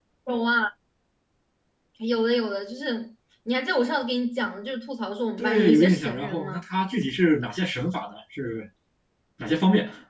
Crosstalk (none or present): present